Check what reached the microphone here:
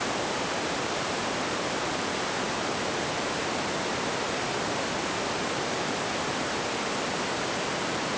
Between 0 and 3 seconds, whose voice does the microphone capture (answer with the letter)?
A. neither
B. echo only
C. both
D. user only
A